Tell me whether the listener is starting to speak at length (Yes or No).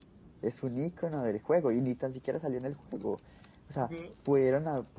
No